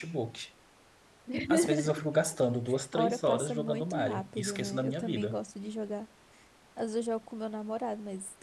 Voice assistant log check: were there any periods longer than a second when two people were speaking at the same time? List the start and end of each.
2.9-5.4

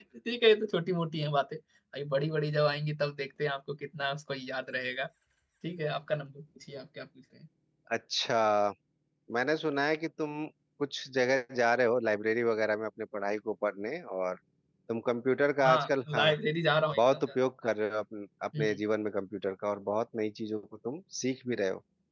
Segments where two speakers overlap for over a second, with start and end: none

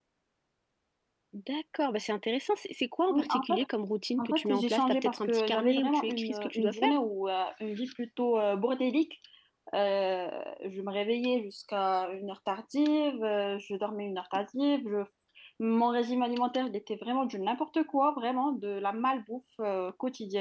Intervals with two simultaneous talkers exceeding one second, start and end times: 4.2-6.9

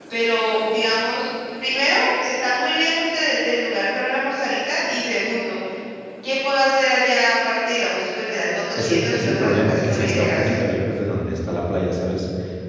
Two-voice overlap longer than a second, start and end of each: 8.8-10.6

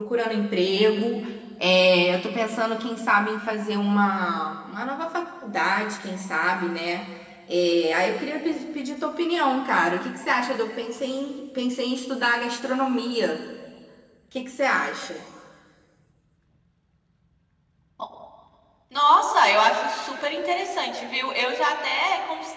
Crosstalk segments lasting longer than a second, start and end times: none

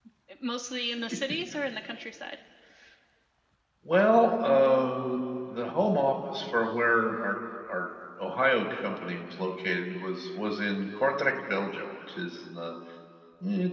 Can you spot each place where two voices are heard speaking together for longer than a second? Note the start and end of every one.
none

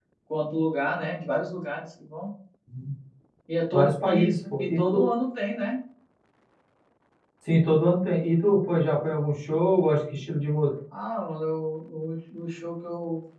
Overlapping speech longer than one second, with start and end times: 3.7-5.0

